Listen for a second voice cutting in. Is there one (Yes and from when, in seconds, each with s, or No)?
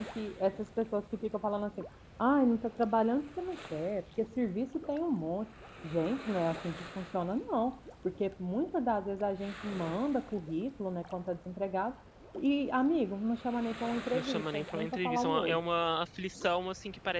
Yes, from 14.1 s